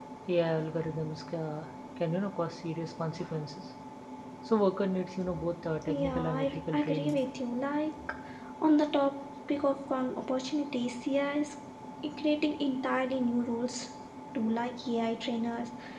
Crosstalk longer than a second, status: present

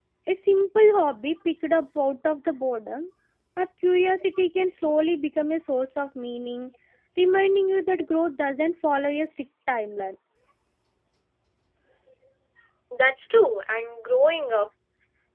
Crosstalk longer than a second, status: none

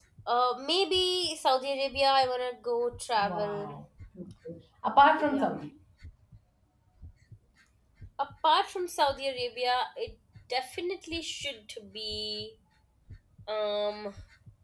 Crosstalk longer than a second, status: none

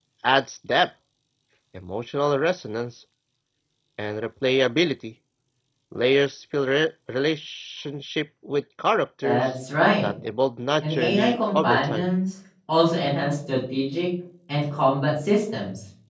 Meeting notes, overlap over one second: present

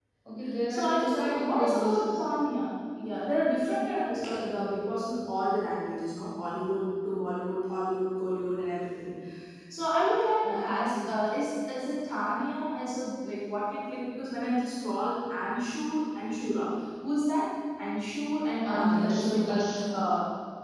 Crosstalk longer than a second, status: present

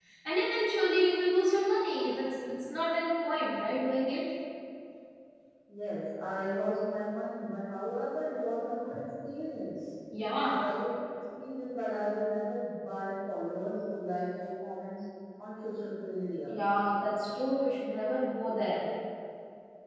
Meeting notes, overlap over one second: none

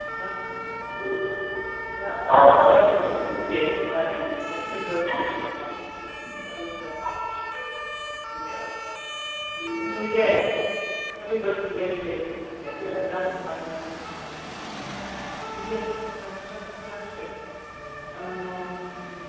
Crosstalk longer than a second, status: present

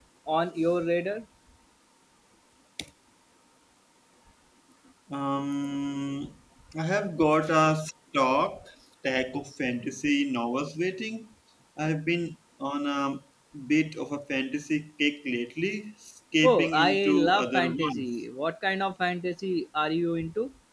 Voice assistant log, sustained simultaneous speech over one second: present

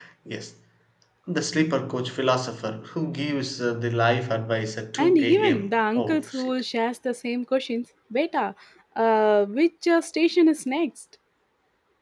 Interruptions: present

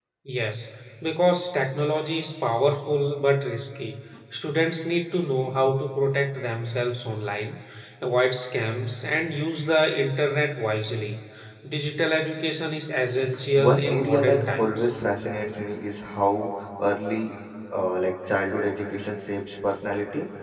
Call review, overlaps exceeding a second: present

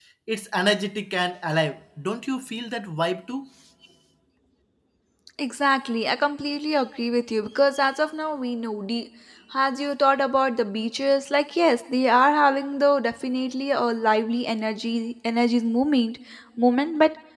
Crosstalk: none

